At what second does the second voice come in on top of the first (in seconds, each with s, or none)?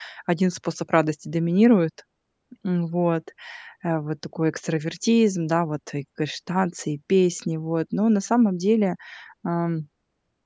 none